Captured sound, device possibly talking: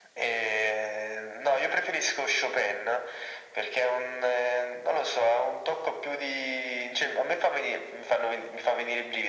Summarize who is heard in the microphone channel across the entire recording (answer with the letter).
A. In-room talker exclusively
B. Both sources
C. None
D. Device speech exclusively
D